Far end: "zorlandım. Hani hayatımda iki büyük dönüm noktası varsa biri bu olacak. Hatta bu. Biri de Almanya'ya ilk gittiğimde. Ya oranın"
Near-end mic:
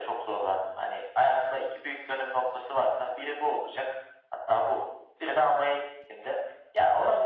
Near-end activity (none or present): none